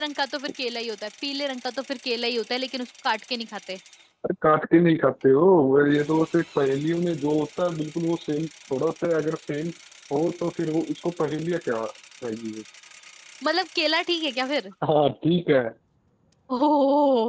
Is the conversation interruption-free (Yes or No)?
Yes